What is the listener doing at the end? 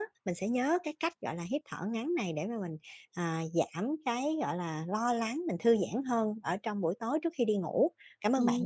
taking over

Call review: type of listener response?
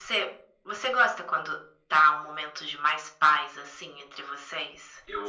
taking over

